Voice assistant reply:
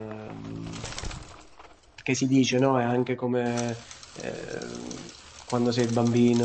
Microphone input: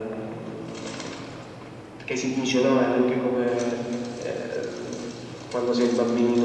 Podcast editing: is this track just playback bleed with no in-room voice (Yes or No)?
Yes